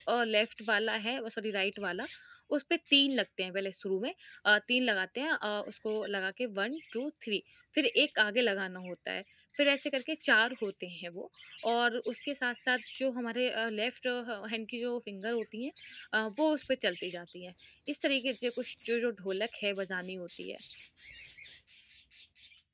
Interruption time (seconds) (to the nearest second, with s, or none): none